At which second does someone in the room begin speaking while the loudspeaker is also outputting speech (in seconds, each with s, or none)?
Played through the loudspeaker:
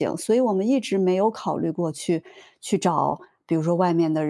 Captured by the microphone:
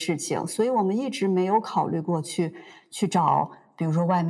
none